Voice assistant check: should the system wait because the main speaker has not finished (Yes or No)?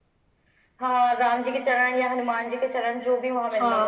No